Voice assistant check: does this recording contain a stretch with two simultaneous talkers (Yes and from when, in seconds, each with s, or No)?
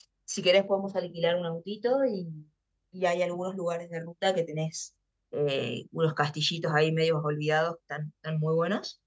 No